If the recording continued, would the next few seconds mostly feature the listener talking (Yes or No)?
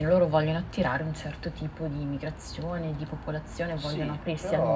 Yes